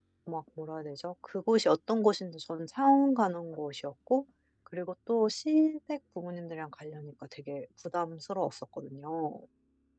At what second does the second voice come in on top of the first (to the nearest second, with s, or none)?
none